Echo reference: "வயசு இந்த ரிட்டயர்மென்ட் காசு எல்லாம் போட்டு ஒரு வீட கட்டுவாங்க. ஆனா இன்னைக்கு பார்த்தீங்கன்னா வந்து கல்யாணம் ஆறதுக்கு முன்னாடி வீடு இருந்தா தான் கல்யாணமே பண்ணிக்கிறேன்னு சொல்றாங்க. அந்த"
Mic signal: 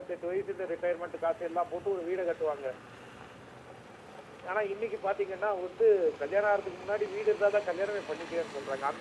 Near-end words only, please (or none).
none